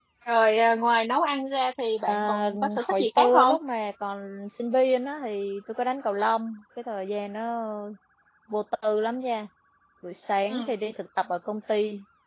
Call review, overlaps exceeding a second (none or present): present